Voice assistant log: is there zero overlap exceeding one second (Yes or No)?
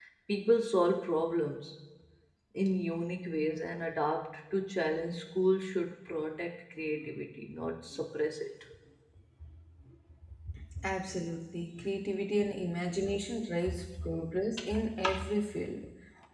Yes